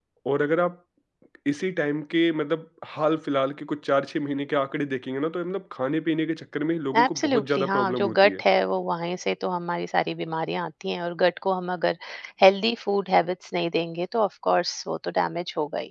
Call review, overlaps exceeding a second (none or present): present